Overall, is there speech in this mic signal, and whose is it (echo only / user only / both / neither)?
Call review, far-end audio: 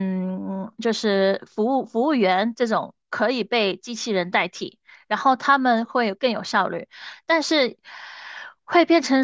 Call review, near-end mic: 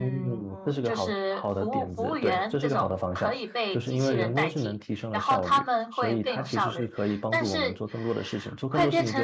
both